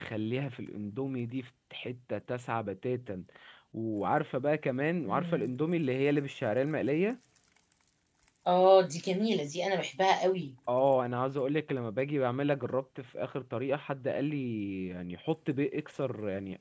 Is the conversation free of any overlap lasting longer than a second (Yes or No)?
Yes